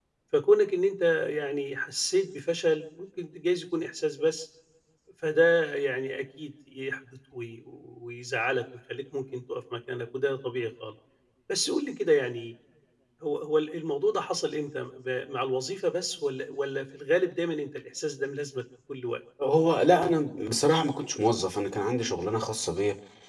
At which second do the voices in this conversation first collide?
none

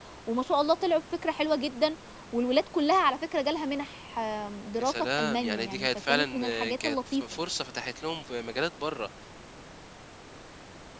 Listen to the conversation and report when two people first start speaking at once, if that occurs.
4.8 s

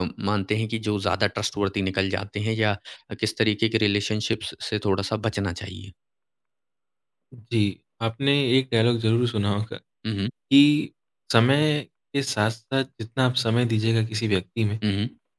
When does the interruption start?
none

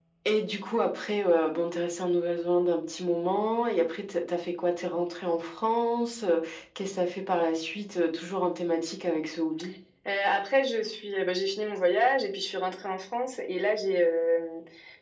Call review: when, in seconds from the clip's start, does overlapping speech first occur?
none

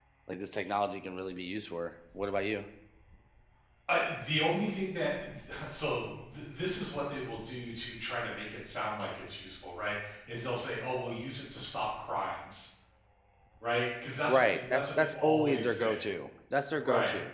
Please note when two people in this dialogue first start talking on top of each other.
14.3 s

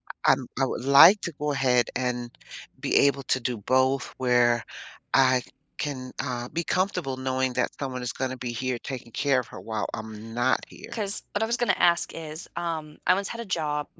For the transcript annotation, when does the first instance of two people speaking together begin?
none

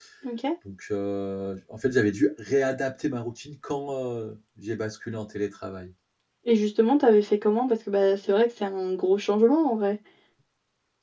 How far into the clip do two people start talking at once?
none

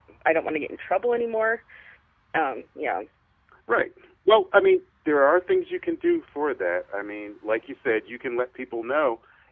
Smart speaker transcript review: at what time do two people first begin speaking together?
none

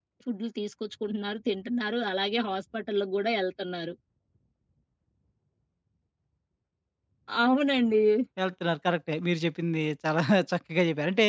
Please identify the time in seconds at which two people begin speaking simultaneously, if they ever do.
none

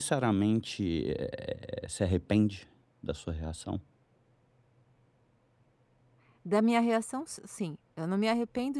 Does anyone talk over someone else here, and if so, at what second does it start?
none

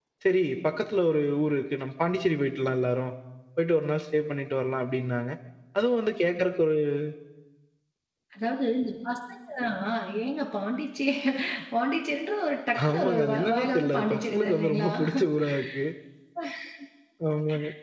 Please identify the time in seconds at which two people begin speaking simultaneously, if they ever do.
12.8 s

